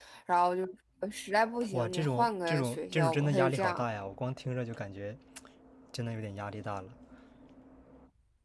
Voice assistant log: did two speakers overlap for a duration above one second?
Yes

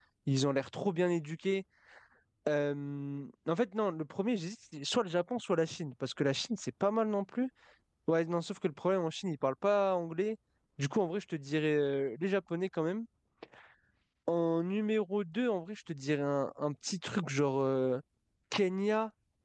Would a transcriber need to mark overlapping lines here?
No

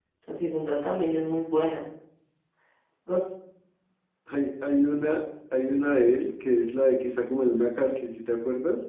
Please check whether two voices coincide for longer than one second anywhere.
No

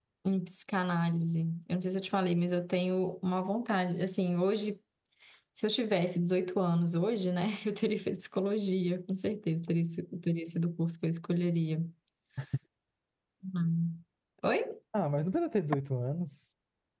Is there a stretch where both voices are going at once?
No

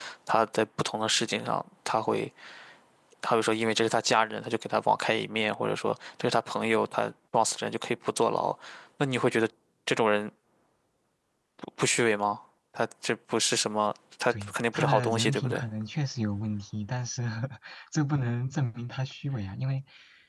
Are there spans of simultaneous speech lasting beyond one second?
Yes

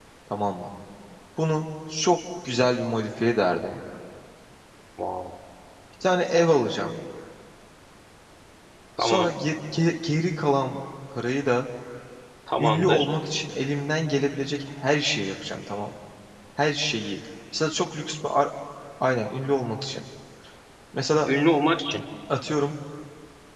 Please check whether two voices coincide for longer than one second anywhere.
No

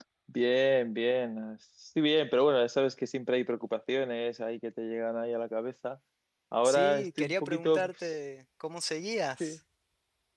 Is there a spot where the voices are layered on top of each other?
Yes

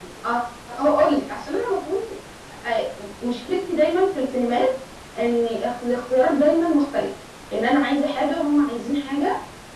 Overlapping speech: No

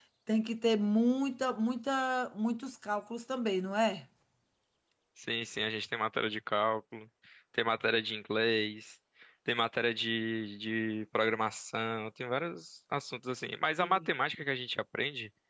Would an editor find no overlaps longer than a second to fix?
Yes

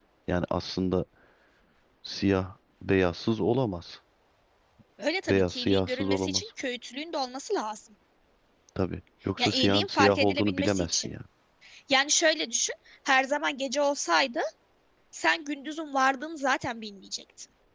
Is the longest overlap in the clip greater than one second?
Yes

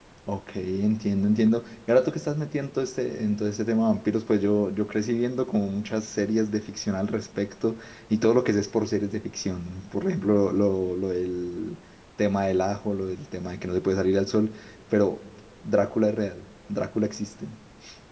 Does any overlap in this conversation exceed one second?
No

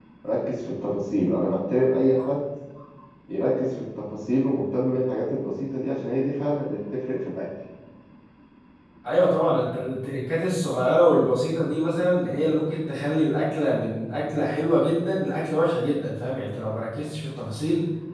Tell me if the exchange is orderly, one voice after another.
Yes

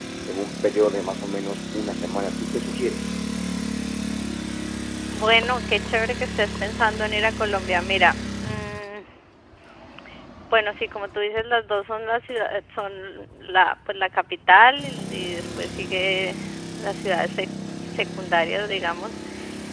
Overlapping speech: No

